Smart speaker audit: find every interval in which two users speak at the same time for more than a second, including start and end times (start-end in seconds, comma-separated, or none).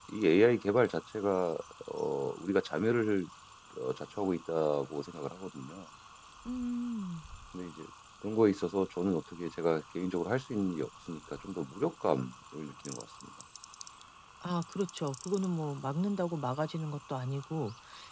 none